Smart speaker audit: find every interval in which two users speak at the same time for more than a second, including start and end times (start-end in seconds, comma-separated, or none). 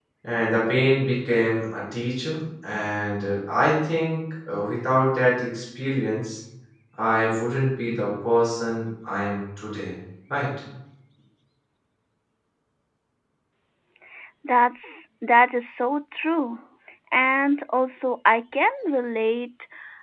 none